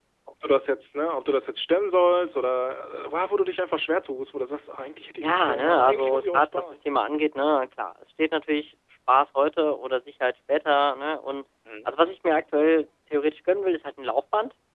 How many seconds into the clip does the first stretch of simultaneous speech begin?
5.2 s

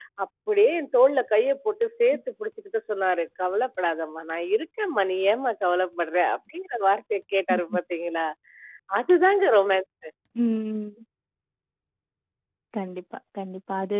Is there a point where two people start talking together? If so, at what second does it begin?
none

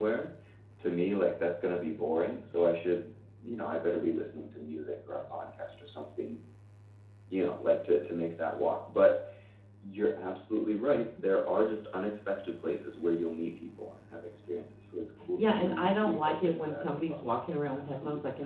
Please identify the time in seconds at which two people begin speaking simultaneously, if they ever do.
15.3 s

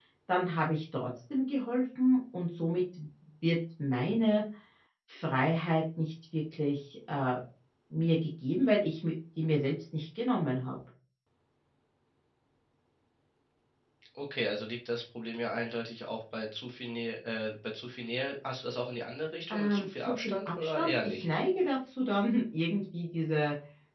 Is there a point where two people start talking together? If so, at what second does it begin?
19.5 s

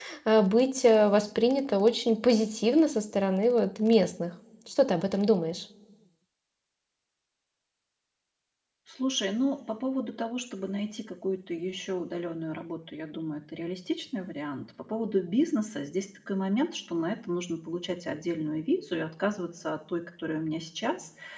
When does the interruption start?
none

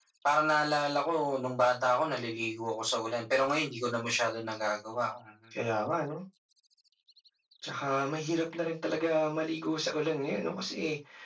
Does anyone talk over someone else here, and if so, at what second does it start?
none

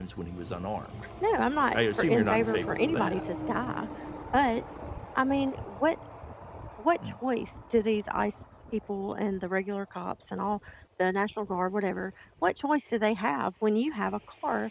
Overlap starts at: 1.7 s

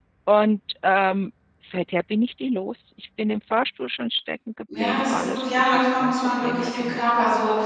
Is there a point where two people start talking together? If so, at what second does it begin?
4.7 s

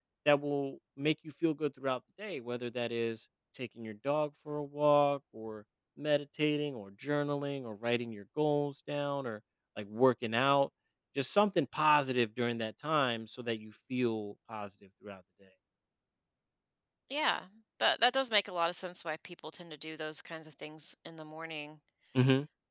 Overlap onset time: none

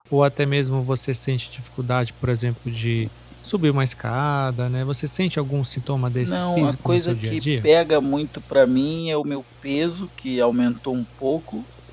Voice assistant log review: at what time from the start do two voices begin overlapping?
6.2 s

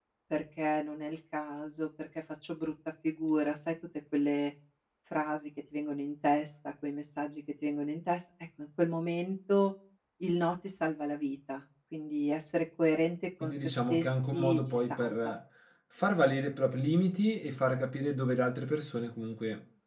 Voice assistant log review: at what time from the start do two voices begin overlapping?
13.4 s

